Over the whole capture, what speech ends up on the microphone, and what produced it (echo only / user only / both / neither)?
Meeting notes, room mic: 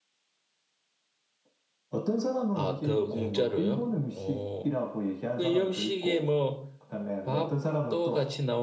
both